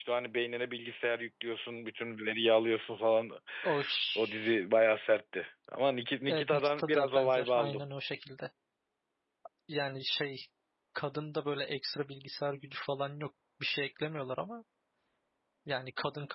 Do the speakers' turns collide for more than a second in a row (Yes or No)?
Yes